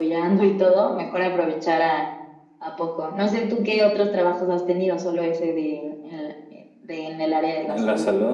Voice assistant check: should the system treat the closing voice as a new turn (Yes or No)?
Yes